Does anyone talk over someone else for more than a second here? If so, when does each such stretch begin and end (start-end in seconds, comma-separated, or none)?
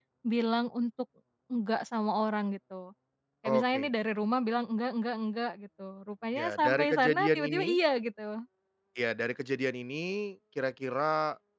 6.4-7.7